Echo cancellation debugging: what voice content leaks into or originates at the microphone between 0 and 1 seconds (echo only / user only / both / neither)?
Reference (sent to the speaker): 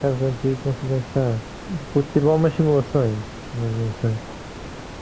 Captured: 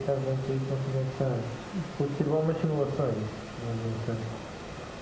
echo only